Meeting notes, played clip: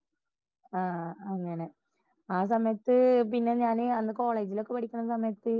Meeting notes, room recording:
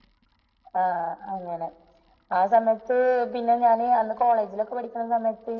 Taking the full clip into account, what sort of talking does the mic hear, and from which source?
echo only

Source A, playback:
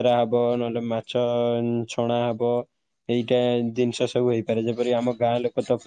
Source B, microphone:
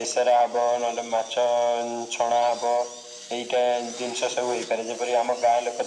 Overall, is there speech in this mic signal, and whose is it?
echo only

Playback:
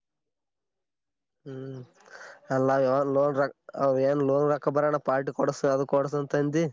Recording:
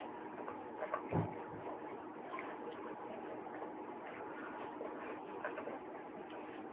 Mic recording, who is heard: neither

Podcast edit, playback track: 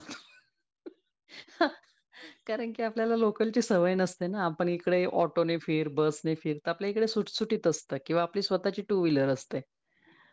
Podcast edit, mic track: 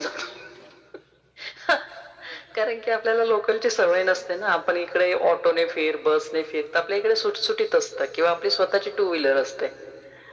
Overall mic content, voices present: echo only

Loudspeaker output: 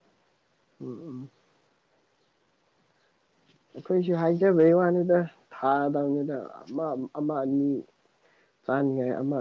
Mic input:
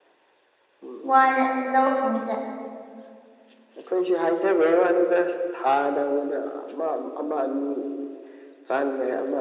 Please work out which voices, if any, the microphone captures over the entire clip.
both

